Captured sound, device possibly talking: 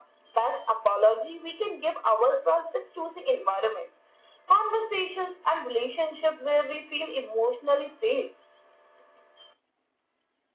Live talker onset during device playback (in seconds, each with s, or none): none